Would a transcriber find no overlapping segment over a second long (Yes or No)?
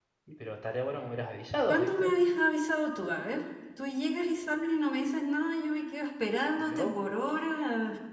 Yes